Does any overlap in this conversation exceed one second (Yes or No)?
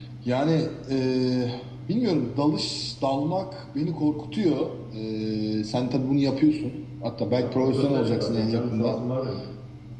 Yes